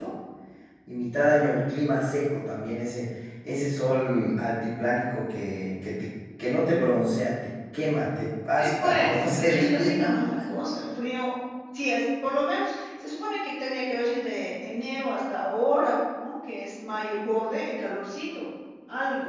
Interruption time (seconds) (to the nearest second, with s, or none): 9 s